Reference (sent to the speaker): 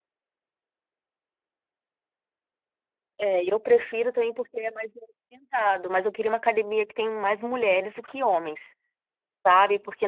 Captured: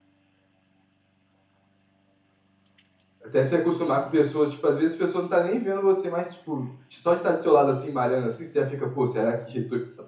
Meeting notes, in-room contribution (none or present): present